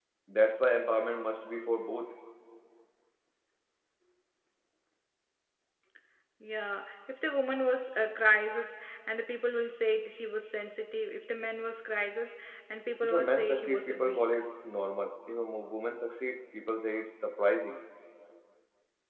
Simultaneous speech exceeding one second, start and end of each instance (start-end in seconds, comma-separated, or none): 13.0-14.3